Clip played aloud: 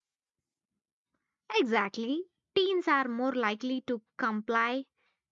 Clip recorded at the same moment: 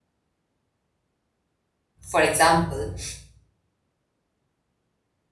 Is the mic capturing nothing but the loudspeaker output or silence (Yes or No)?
No